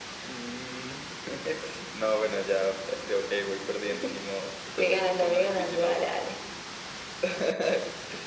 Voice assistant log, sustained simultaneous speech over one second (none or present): present